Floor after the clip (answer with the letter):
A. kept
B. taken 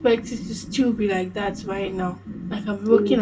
A